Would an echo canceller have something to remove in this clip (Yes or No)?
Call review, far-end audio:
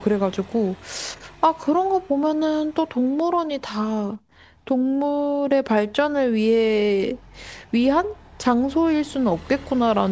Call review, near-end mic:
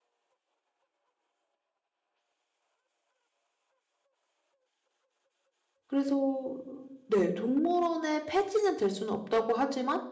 No